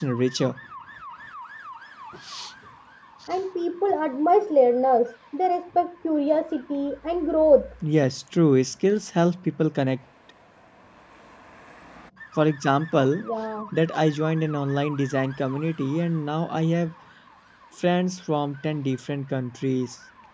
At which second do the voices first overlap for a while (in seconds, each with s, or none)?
none